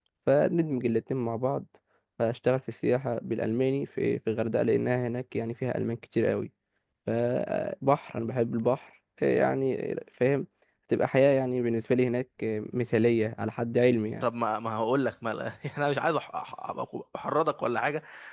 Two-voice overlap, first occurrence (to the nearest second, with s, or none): none